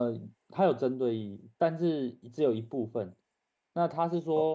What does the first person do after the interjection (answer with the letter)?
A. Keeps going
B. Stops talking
A